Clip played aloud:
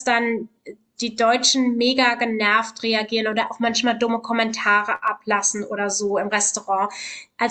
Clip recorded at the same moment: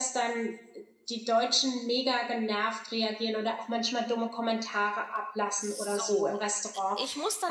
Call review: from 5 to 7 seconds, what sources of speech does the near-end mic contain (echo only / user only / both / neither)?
both